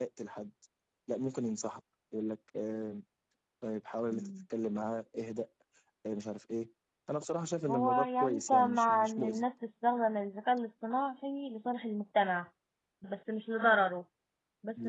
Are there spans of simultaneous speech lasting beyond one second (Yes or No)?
Yes